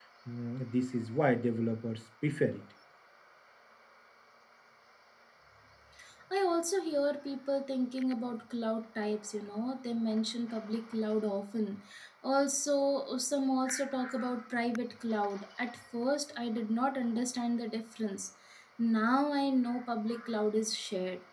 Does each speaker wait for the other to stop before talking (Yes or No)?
Yes